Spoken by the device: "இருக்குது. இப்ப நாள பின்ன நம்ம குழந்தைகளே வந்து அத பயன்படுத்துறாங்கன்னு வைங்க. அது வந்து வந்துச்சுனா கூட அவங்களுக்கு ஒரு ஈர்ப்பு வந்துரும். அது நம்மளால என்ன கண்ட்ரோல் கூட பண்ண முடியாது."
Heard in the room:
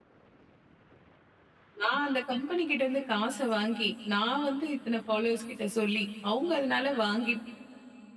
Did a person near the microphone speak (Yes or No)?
Yes